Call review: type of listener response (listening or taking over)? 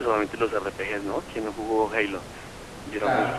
taking over